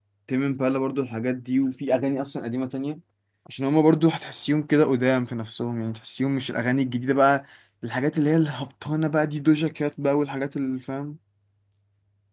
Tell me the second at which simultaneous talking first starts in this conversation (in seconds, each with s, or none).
none